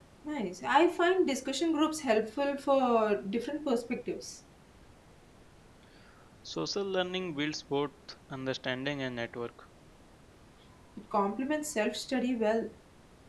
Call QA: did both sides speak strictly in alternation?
Yes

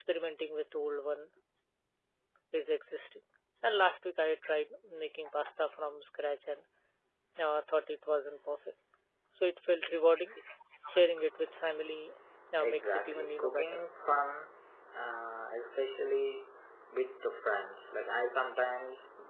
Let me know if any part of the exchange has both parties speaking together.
Yes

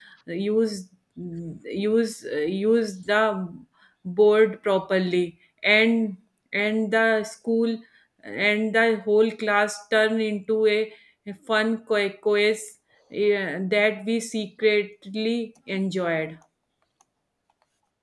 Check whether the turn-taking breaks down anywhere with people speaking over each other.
No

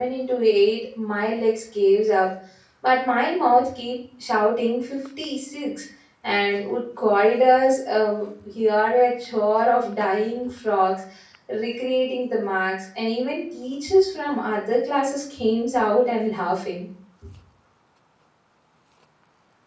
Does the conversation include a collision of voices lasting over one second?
No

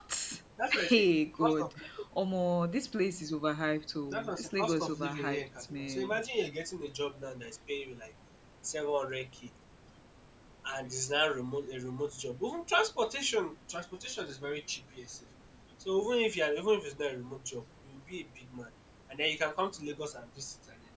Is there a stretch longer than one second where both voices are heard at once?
Yes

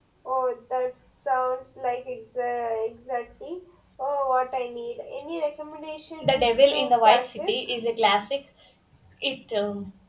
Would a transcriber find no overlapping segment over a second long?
No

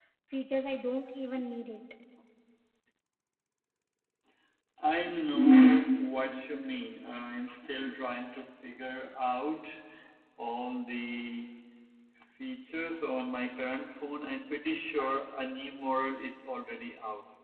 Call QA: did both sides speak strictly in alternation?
Yes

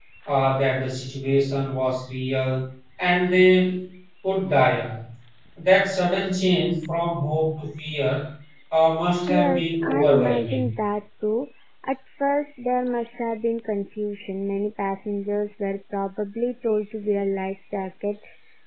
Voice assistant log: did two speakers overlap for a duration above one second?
Yes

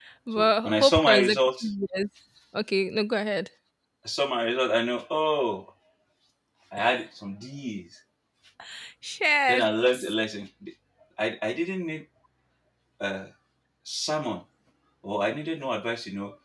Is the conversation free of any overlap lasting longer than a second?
No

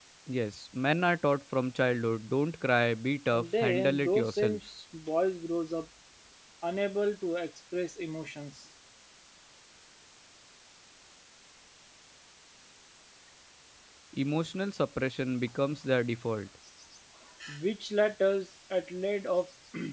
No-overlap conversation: No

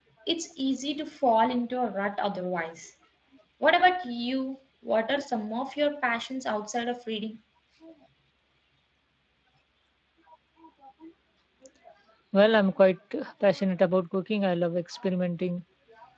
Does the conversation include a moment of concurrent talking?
No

